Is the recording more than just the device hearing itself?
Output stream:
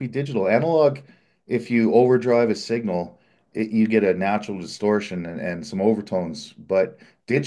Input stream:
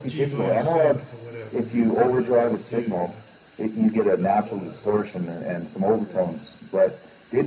Yes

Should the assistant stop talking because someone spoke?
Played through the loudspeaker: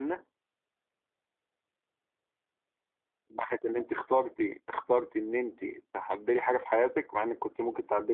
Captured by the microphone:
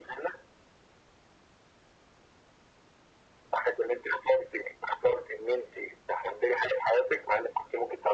No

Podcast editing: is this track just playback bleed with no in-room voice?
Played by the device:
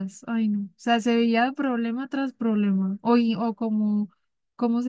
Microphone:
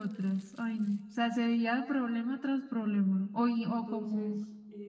No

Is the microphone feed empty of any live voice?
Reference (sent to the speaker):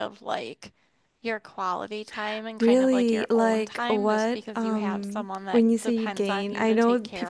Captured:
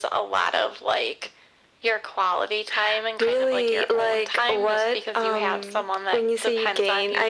Yes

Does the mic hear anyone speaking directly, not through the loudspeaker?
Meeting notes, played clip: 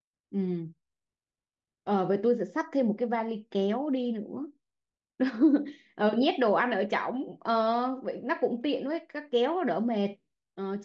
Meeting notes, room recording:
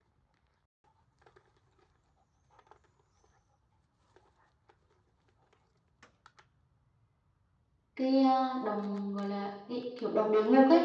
Yes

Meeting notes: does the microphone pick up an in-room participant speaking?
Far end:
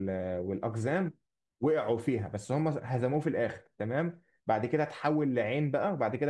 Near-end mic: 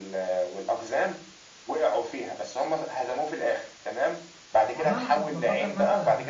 Yes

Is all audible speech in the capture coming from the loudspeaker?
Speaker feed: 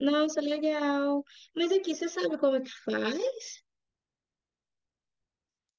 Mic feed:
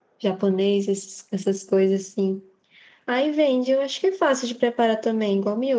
No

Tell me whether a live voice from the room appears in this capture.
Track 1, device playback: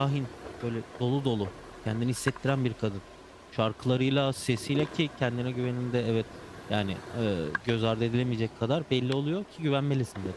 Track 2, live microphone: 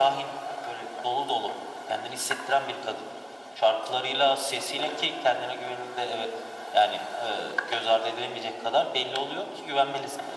No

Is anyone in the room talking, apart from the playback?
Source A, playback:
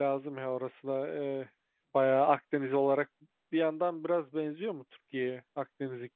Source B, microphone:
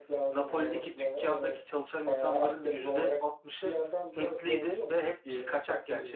Yes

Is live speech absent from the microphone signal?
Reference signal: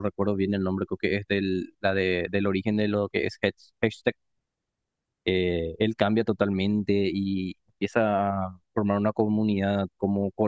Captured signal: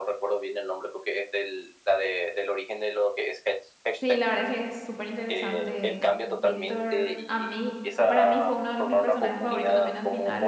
No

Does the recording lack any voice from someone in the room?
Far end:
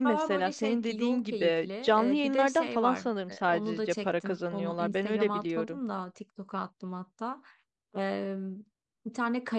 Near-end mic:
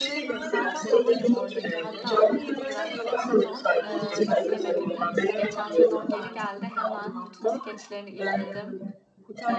No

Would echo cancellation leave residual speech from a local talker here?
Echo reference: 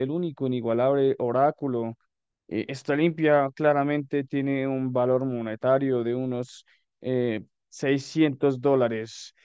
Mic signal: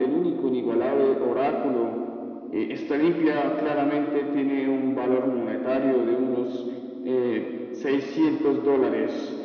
No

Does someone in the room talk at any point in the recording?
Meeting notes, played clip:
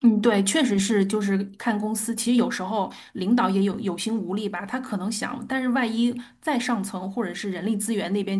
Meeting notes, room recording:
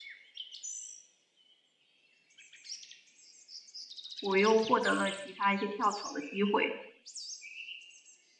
Yes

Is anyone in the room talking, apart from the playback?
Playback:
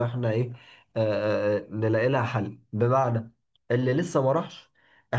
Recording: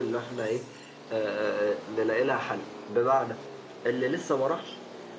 No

